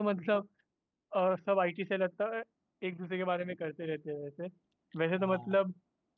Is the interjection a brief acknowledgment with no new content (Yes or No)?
Yes